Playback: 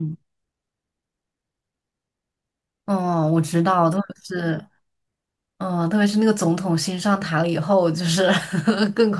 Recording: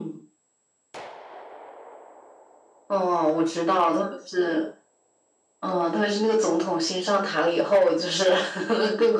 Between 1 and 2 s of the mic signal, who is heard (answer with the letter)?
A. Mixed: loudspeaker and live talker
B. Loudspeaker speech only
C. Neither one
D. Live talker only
C